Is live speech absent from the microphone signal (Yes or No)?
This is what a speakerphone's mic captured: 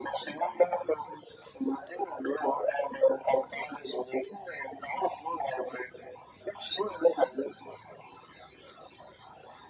Yes